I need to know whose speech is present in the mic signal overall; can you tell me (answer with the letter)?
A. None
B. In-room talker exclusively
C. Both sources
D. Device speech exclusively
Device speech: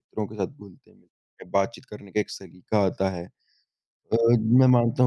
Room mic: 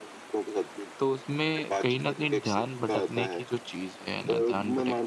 C